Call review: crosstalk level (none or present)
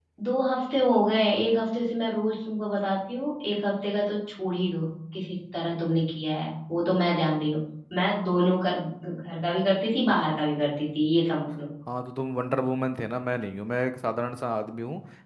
none